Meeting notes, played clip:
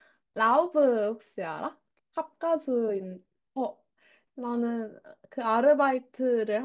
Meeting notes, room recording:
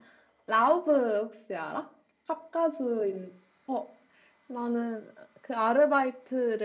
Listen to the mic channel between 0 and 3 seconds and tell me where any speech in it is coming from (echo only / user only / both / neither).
echo only